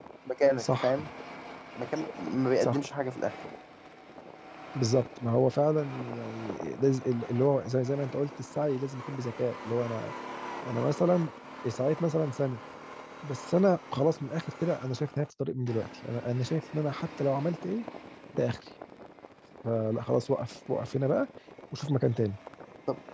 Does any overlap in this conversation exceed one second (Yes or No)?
No